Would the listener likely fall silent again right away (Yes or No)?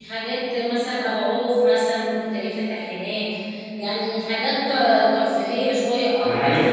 No